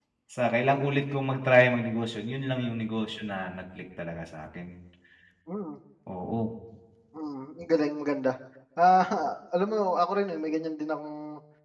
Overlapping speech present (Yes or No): No